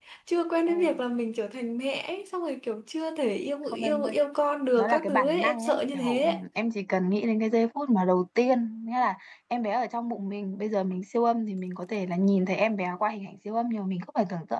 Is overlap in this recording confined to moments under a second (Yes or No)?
No